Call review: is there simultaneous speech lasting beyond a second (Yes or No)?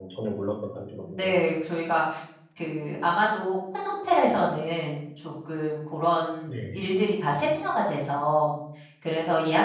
No